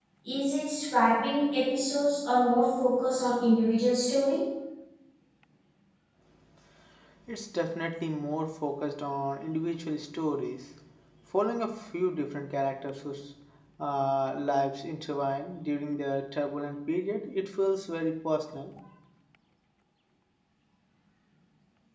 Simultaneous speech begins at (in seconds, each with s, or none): none